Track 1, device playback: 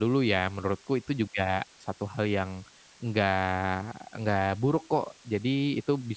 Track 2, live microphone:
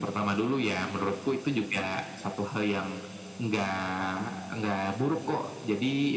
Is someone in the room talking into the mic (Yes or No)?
No